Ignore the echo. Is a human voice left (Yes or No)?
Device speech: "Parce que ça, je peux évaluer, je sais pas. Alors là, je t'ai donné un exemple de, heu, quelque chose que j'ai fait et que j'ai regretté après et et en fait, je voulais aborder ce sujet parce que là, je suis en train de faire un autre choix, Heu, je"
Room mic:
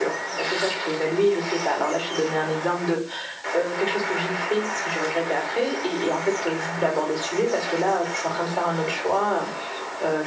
No